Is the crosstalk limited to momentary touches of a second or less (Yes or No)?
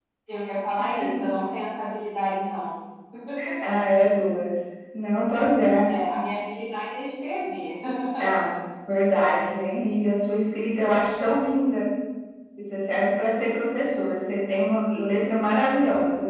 Yes